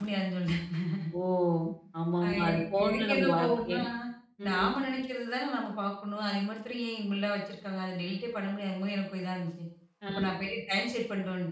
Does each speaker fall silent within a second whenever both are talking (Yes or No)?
No